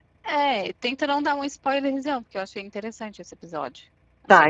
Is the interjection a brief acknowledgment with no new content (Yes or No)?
No